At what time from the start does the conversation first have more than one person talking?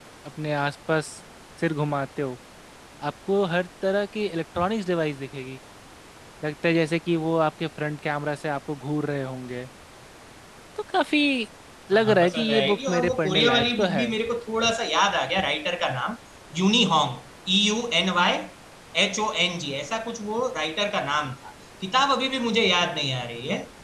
11.9 s

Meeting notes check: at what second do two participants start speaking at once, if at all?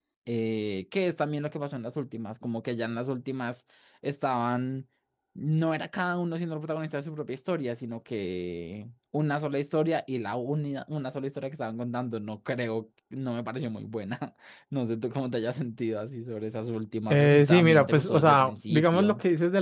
17.1 s

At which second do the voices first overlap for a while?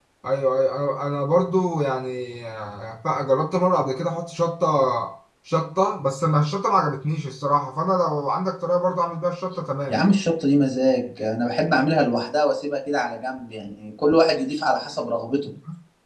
none

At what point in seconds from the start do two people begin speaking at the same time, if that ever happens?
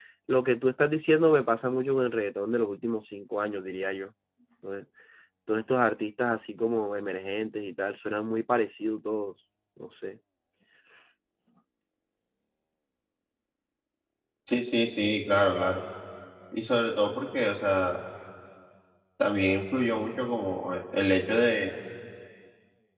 none

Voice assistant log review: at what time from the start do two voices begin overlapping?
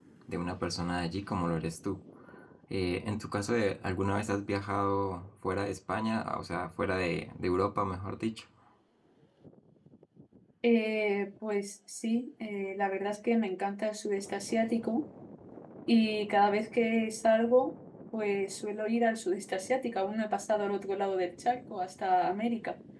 none

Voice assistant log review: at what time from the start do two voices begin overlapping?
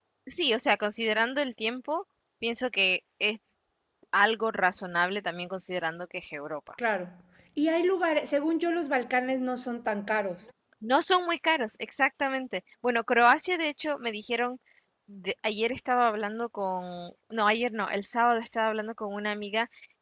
none

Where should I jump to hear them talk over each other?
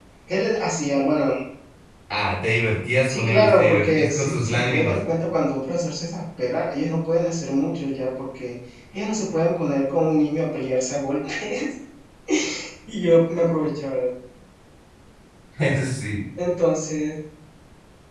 3.1 s

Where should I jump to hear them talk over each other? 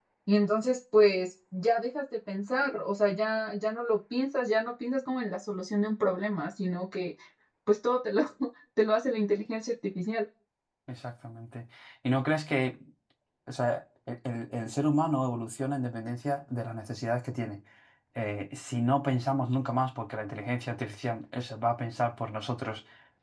none

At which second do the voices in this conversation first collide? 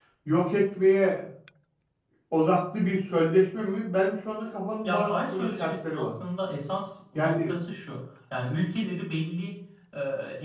4.8 s

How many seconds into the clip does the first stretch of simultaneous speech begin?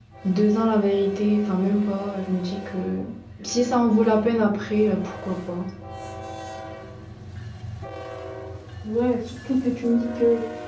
none

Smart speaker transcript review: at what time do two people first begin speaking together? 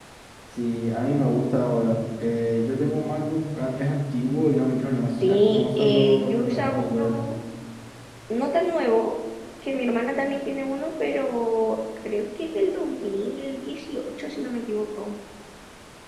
5.2 s

